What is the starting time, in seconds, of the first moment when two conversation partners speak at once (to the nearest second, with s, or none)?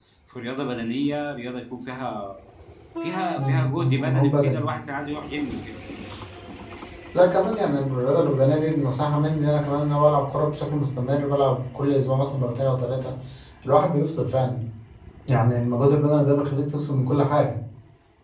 3 s